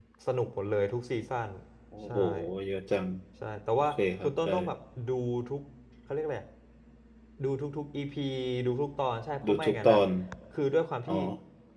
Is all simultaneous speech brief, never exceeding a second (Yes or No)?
Yes